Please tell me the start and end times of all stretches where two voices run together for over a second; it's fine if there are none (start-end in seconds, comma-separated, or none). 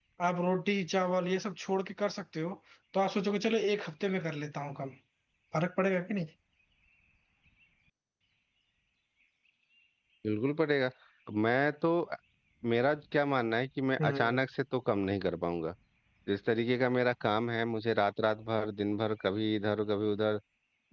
none